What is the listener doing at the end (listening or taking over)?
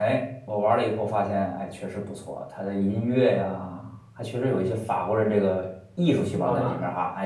listening